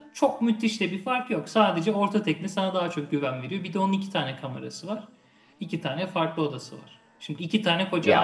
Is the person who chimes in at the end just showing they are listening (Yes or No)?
Yes